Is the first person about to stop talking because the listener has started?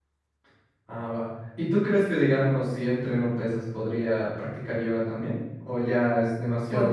Yes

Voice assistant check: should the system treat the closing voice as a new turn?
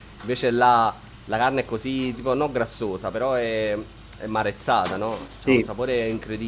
No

